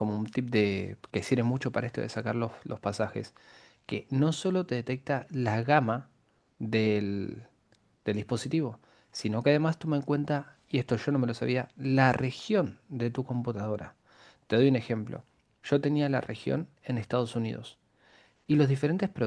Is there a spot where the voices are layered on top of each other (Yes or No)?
No